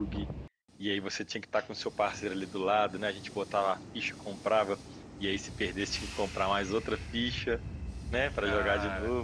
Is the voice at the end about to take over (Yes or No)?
No